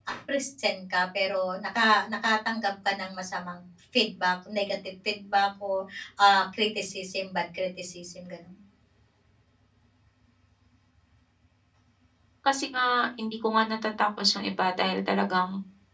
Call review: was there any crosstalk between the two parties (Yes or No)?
No